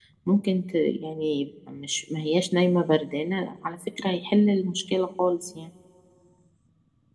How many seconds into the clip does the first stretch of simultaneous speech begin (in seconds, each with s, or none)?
none